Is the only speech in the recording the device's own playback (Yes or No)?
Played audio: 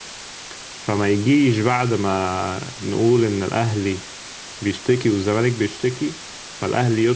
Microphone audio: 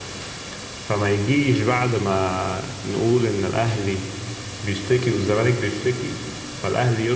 Yes